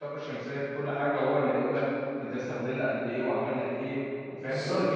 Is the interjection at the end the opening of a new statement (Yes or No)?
Yes